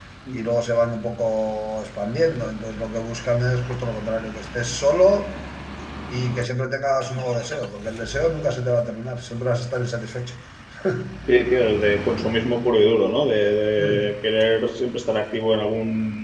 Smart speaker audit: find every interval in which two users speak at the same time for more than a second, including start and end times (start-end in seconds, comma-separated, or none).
none